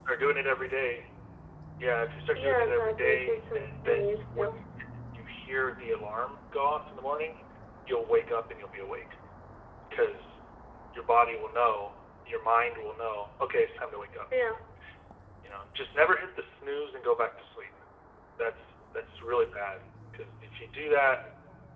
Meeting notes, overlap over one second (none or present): present